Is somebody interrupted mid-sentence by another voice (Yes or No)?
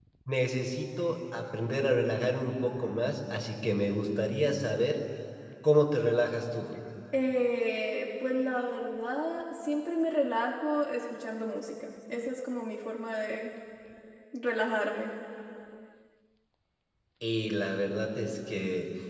No